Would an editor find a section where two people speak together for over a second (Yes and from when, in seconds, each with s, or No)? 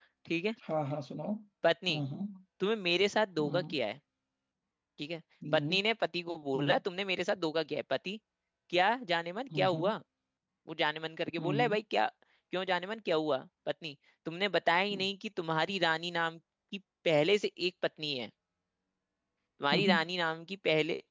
No